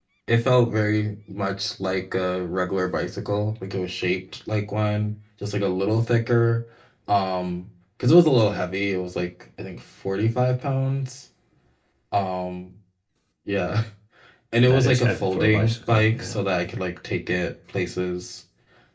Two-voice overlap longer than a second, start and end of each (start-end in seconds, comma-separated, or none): 14.7-16.4